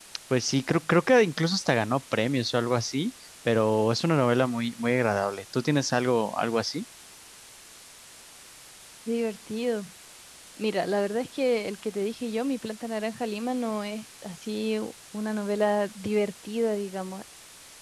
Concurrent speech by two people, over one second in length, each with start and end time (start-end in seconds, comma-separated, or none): none